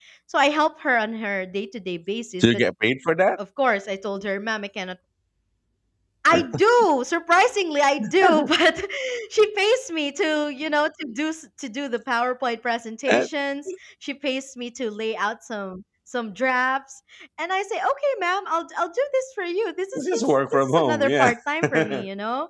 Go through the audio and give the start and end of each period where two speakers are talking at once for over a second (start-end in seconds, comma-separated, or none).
19.9-21.3